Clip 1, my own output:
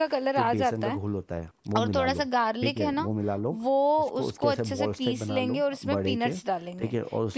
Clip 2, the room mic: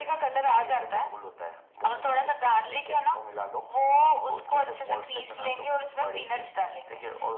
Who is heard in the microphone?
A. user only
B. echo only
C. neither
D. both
B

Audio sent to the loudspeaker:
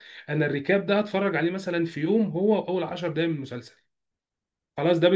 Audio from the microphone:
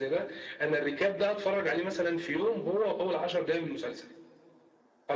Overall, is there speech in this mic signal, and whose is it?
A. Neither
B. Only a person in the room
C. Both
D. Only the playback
D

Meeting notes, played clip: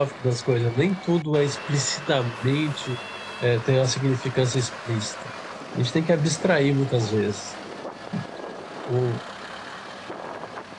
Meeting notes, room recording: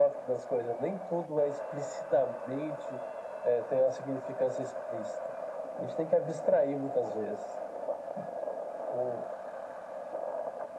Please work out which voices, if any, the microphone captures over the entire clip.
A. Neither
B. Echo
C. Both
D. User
B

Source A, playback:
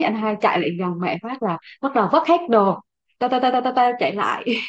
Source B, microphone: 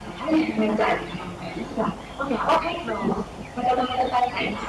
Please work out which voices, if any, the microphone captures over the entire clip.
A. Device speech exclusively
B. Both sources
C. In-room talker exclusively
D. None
A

